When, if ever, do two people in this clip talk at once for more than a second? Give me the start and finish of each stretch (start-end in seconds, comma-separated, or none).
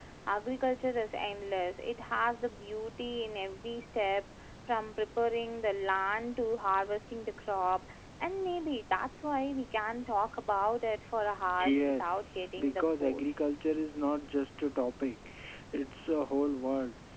11.7-13.2